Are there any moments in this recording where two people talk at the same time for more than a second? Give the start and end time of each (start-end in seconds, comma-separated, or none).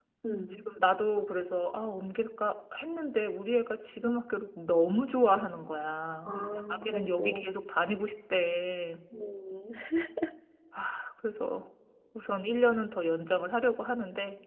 6.2-7.5